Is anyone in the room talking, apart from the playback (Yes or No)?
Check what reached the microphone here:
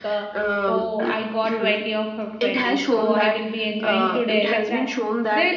Yes